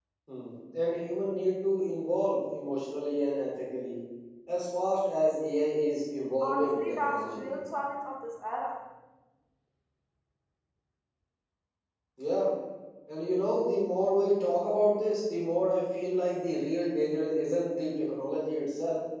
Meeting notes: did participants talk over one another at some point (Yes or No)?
Yes